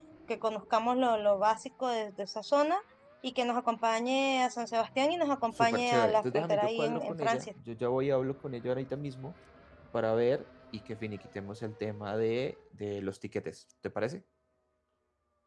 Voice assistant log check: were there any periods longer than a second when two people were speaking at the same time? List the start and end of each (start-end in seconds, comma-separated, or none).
5.6-7.5